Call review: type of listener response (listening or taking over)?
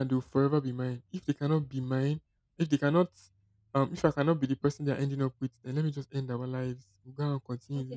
taking over